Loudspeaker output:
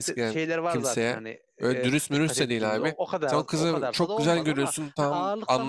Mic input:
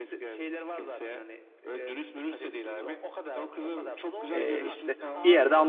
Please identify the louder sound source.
user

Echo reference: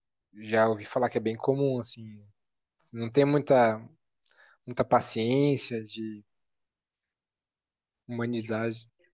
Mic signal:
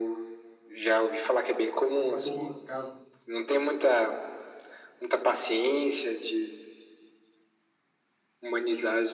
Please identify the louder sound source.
echo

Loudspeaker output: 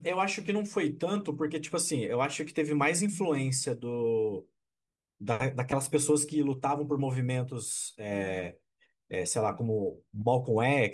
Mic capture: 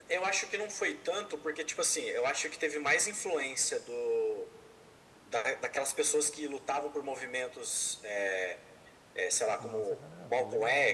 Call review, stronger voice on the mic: echo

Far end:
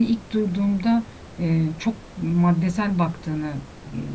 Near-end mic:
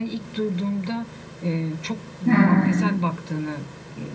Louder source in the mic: user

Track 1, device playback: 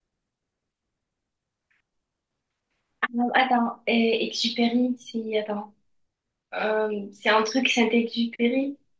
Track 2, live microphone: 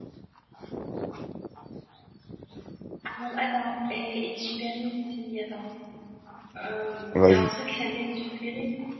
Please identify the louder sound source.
user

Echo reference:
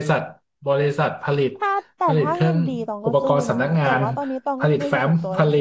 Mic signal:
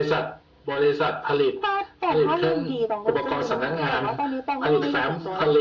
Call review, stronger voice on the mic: echo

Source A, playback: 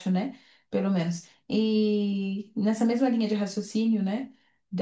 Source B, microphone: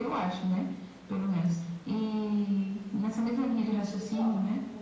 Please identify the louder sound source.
echo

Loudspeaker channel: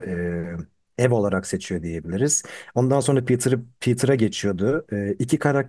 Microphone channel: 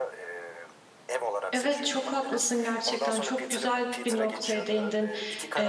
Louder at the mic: user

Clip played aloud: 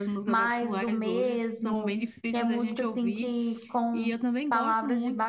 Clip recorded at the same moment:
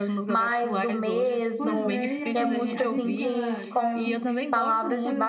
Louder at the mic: echo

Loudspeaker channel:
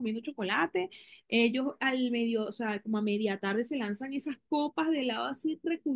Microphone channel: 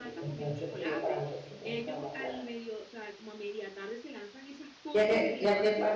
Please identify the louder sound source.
user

